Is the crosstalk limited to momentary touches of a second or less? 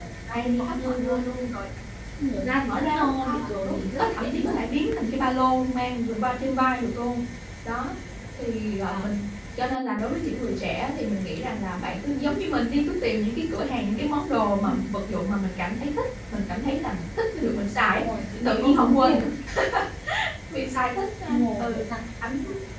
No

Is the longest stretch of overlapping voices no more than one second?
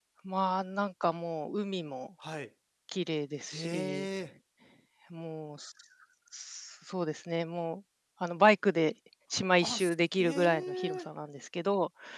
No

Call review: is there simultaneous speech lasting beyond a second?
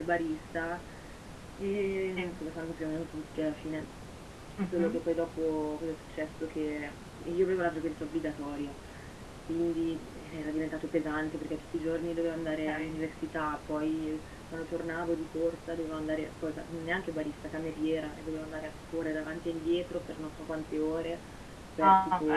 No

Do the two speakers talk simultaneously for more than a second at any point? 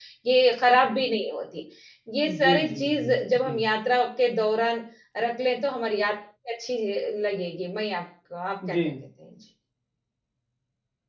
Yes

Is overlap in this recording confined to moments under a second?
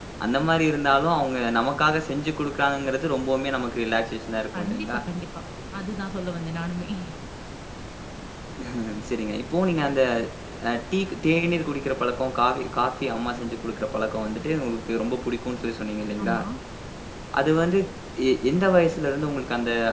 Yes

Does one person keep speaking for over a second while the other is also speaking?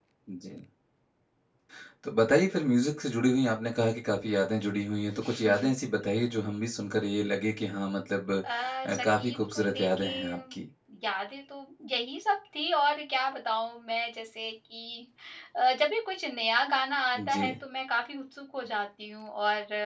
Yes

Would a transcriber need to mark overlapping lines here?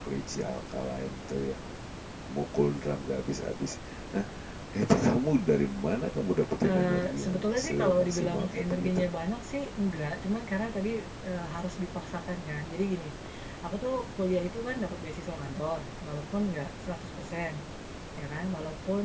Yes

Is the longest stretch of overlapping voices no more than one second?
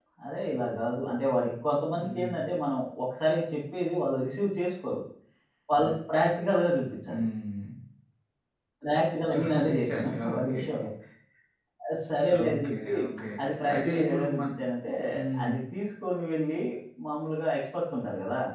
No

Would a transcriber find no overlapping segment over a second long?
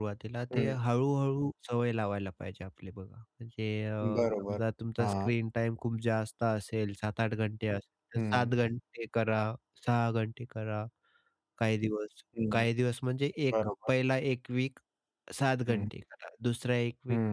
Yes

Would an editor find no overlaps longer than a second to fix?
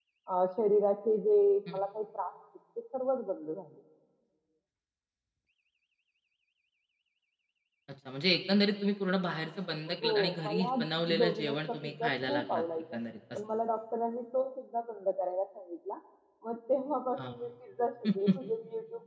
No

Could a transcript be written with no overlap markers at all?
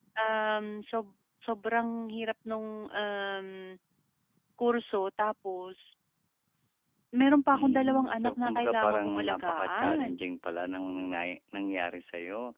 No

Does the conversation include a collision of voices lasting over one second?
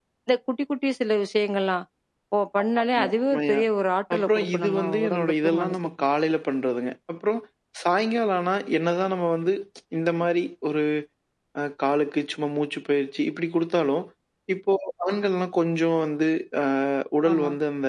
Yes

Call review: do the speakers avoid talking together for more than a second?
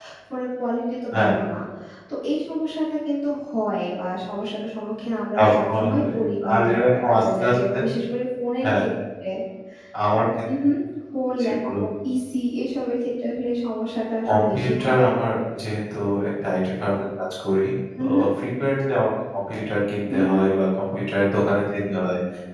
No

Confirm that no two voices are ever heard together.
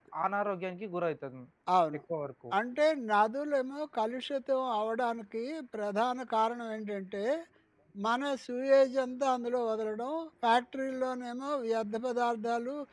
Yes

